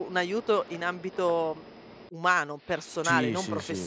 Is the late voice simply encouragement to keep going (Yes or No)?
No